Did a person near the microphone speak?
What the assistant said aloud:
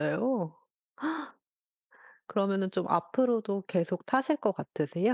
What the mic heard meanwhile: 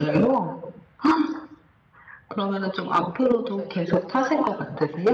Yes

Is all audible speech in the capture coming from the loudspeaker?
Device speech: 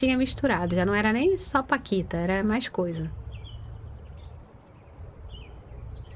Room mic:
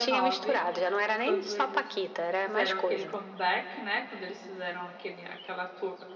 No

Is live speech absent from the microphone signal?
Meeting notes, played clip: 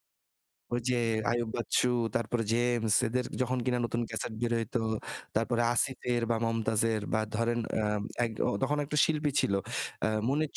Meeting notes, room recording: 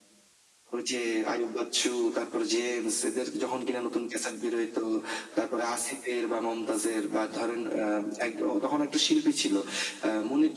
Yes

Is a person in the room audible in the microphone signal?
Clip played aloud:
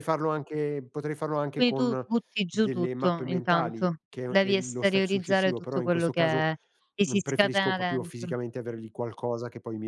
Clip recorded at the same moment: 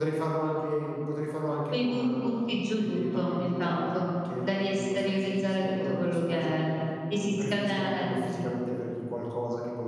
No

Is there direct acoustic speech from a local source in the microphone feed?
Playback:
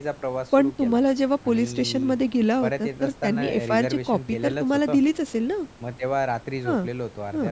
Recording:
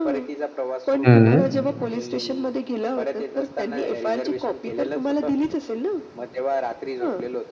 Yes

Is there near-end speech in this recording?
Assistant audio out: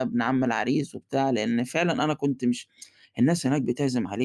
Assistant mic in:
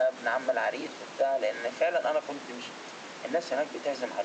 No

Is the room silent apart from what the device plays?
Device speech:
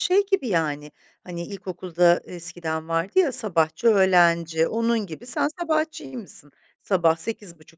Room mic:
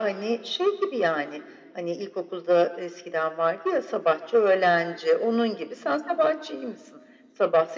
Yes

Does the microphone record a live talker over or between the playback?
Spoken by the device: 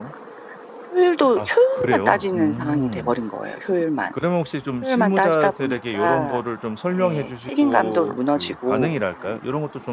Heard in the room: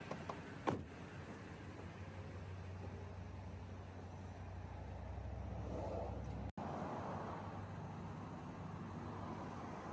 No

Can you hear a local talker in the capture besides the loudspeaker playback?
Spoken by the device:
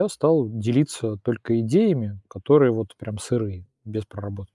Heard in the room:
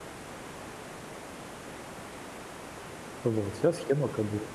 Yes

